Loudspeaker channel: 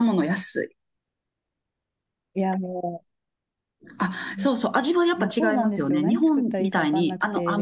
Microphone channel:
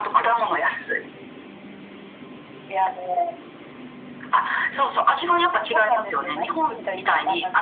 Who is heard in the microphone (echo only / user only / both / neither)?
echo only